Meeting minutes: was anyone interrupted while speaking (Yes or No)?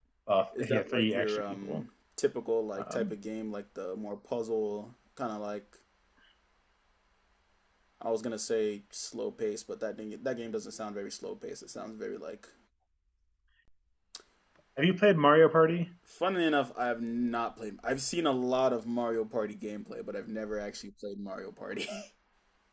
Yes